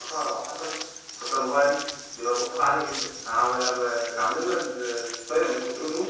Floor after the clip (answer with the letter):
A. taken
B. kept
B